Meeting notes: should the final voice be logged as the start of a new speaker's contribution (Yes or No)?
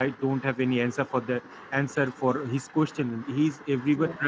No